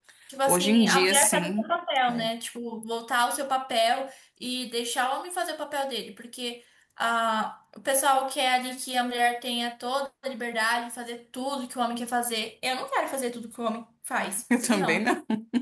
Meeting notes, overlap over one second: present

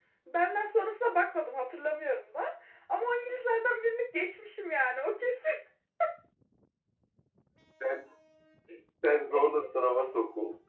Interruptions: none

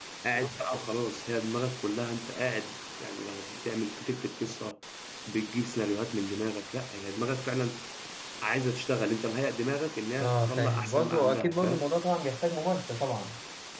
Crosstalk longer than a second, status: present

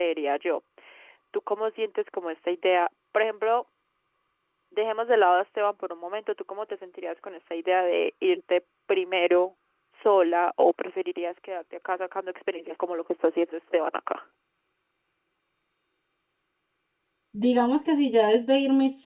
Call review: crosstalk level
none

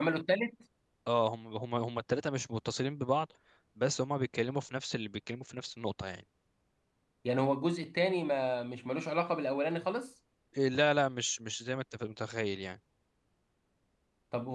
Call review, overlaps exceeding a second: none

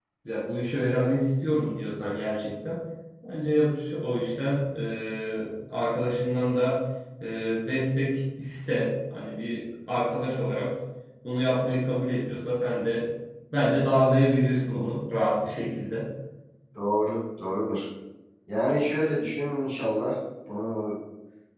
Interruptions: none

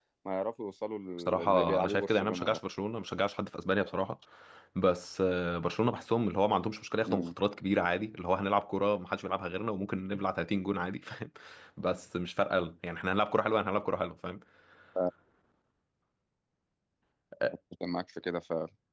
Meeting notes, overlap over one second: present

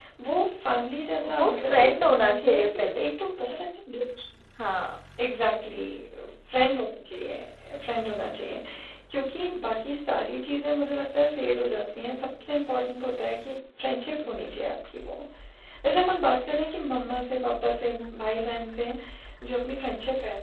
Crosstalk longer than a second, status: present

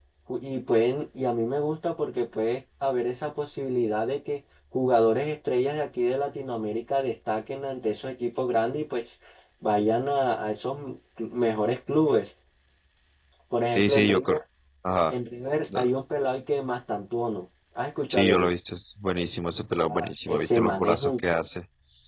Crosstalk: present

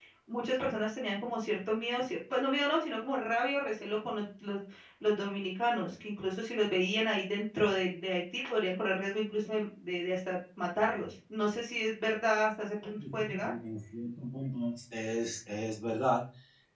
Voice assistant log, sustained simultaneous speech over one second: none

